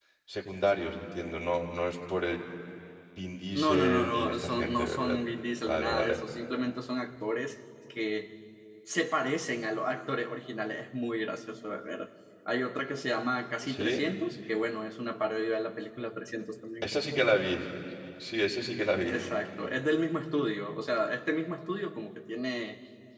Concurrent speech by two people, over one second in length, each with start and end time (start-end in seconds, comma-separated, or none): 3.5-5.2